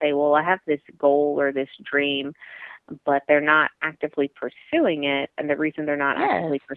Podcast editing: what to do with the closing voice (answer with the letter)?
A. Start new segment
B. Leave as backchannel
B